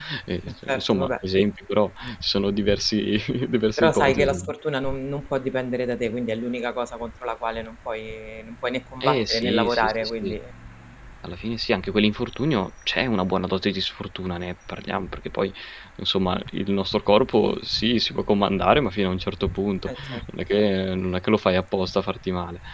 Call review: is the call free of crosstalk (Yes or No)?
No